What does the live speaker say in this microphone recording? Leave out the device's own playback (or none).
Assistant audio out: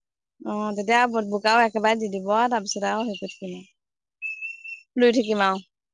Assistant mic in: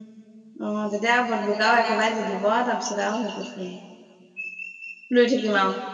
তেনেকে ওলাই আছোঁ বুলি গম নাপা-